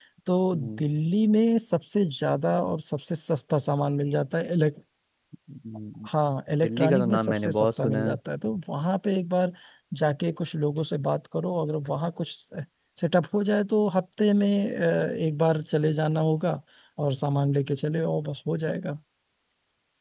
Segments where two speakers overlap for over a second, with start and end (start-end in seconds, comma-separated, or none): 6.6-8.2